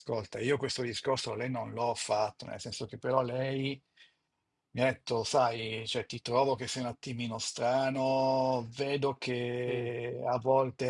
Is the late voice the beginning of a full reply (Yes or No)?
No